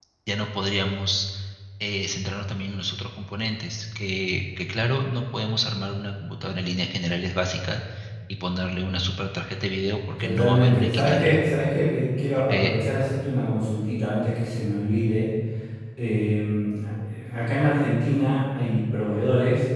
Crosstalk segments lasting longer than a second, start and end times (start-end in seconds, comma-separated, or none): 10.2-11.4